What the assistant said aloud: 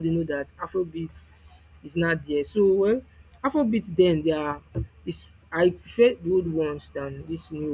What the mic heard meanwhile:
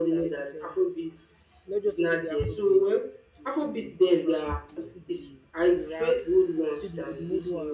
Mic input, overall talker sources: both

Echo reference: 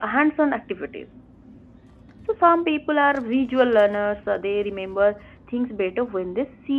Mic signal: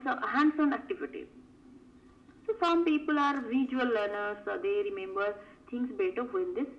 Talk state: echo only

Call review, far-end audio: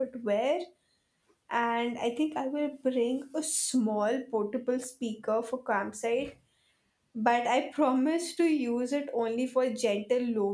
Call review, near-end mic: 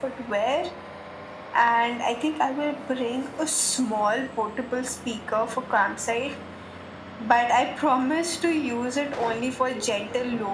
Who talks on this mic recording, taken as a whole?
echo only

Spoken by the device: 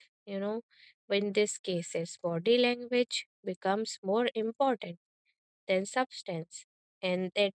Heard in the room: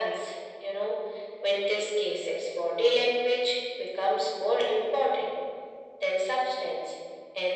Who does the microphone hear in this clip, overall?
echo only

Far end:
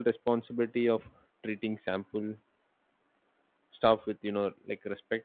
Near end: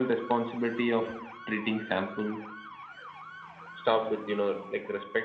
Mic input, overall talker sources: echo only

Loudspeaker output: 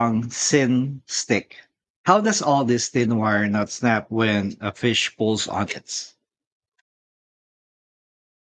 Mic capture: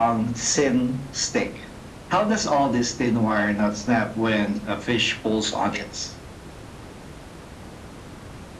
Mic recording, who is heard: echo only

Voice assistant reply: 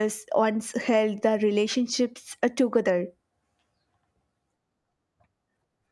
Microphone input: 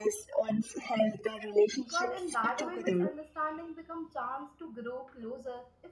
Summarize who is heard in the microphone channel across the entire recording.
both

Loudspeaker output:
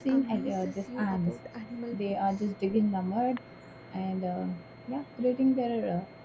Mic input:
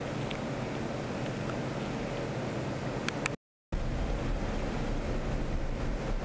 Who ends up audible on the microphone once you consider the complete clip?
neither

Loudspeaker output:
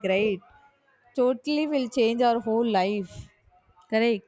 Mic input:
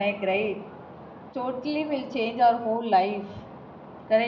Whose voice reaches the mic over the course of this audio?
echo only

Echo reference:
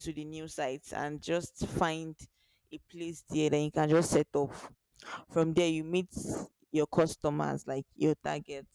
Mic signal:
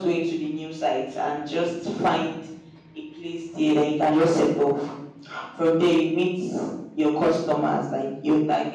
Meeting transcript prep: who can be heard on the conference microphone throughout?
echo only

